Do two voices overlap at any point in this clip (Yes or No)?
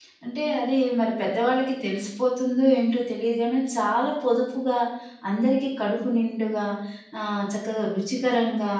No